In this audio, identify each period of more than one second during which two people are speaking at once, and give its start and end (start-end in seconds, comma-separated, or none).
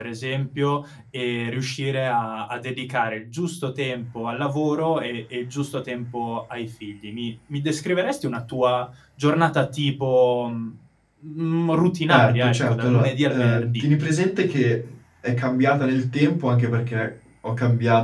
12.1-13.8